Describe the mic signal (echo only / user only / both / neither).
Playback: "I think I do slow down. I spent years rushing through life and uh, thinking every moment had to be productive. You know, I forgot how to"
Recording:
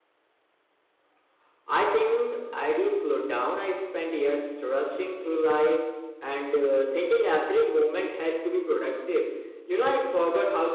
echo only